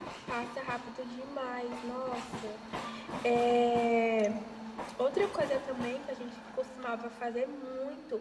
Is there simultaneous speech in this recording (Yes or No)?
No